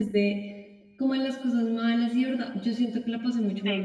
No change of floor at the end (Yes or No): Yes